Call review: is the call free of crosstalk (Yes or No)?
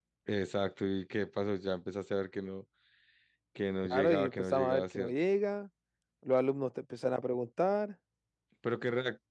No